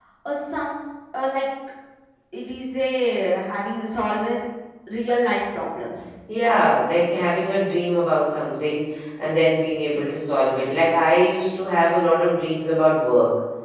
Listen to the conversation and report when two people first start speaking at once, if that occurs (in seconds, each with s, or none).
none